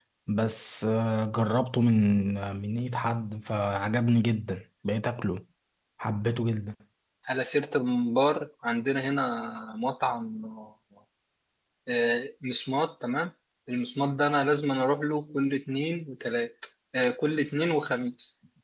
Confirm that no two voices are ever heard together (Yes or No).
Yes